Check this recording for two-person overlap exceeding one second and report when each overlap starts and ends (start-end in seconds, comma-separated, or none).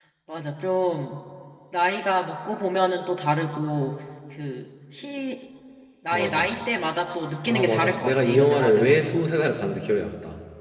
7.5-8.9